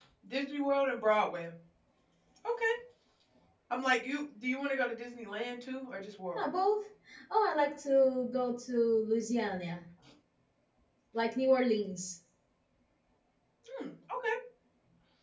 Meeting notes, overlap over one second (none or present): none